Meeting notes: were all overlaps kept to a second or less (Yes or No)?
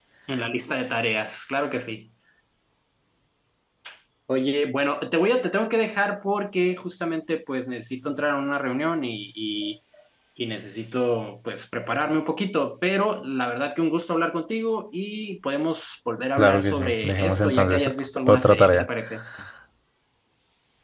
No